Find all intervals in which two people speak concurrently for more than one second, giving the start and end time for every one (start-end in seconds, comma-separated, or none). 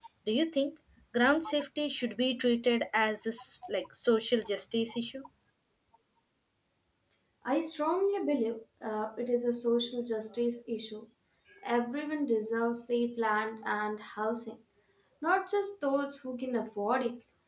none